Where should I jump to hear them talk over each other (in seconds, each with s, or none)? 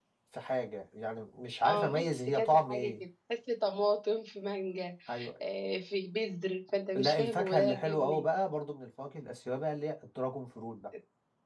1.6 s